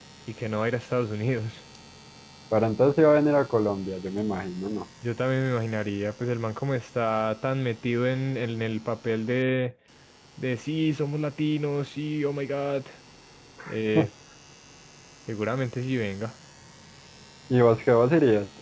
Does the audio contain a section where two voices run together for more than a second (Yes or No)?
No